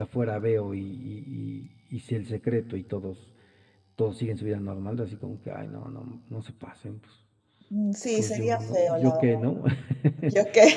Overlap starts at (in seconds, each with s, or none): 8.1 s